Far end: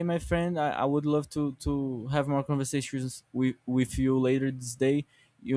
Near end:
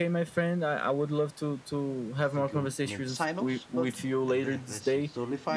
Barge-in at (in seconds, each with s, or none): 2.1 s